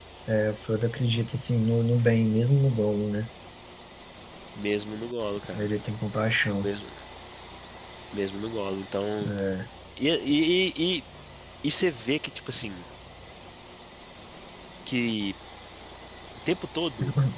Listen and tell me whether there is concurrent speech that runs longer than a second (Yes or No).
No